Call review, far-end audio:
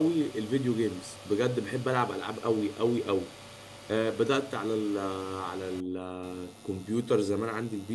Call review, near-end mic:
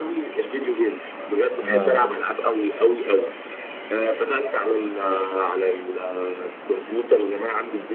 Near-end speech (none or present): present